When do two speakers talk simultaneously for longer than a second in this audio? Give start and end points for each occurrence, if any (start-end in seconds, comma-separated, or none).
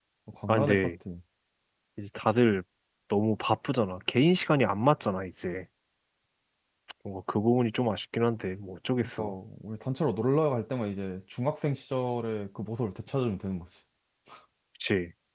none